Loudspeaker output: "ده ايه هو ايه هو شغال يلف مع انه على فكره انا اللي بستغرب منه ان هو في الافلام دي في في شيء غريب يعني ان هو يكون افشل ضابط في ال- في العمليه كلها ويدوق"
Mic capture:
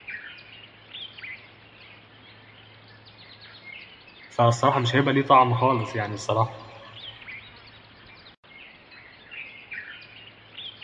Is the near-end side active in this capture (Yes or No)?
Yes